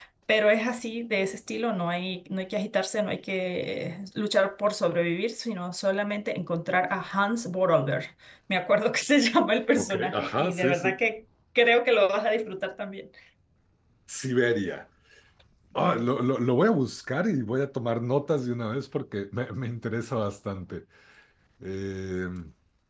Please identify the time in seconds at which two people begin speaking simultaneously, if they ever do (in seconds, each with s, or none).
9.8 s